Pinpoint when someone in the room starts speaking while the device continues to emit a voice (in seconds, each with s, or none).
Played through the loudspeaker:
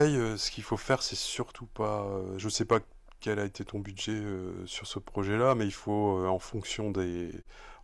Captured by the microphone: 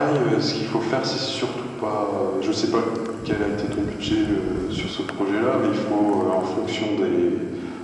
none